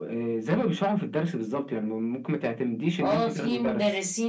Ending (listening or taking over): taking over